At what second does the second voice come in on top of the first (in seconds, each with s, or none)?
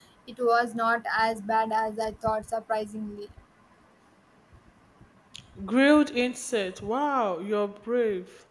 none